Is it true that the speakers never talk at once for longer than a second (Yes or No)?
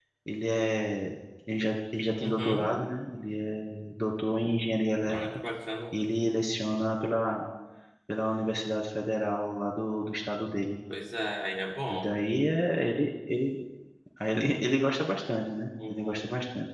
Yes